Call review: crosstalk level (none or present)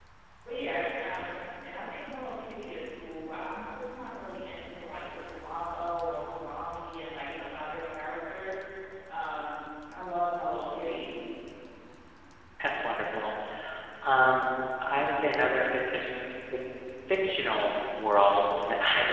none